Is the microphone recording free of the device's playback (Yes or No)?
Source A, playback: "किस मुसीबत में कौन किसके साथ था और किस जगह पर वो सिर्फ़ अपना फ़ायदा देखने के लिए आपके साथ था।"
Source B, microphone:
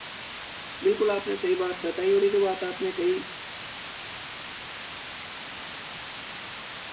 Yes